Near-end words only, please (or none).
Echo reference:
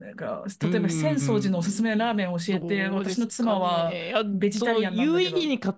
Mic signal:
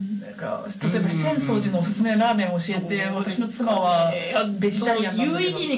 none